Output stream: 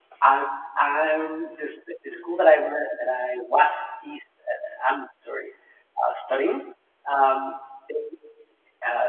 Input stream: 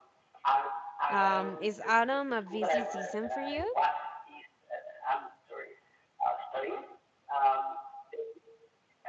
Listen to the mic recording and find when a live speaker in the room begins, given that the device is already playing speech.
1.1 s

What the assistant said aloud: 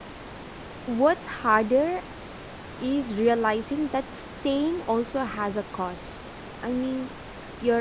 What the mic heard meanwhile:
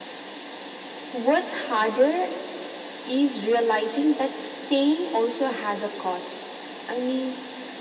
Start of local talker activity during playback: none

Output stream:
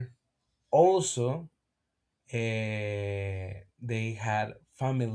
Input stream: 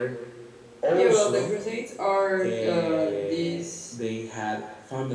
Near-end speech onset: 0.9 s

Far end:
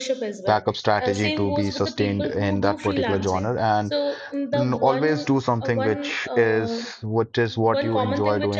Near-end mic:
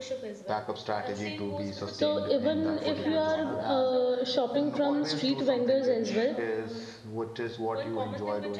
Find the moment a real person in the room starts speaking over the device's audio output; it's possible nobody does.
1.9 s

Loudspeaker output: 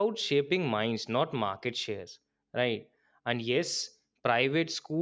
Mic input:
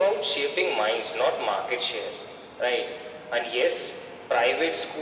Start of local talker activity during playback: none

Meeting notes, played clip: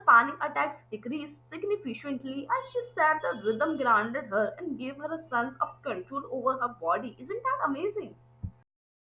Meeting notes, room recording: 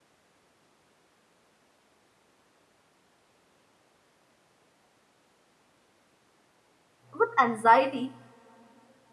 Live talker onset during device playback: 7.1 s

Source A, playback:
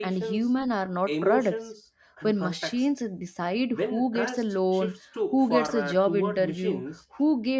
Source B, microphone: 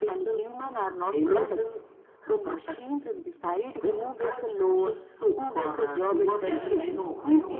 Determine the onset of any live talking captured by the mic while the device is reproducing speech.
6.4 s

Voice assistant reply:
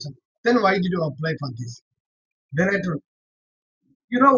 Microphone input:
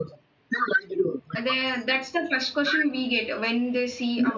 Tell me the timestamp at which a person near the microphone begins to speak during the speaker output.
1.4 s

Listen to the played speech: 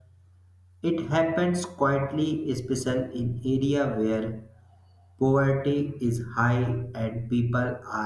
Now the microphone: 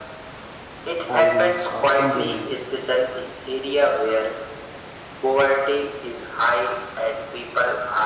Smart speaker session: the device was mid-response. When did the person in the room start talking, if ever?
1.1 s

